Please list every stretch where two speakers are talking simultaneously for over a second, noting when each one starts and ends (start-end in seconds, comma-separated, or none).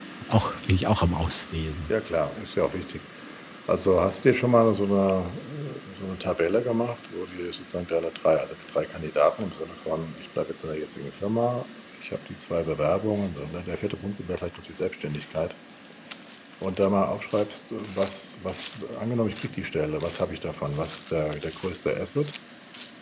none